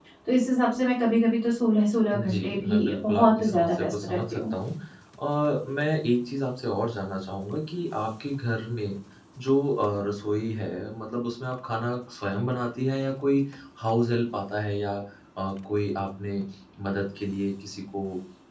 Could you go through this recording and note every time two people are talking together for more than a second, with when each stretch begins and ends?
2.1-4.5

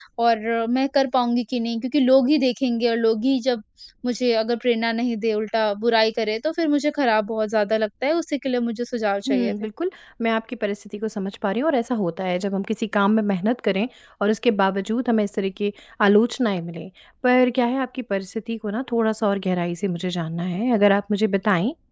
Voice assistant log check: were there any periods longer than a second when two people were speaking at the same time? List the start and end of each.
none

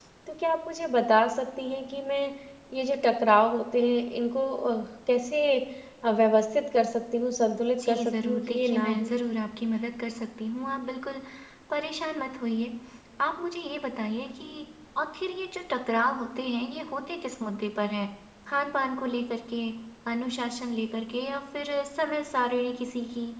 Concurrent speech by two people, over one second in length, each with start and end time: 7.9-9.1

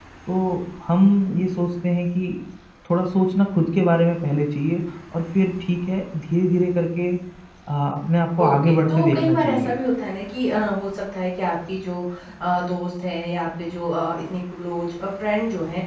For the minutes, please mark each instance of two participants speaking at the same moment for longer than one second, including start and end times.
8.4-9.7

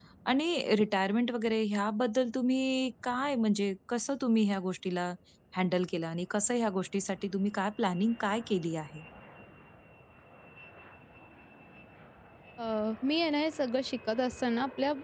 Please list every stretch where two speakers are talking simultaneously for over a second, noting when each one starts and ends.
none

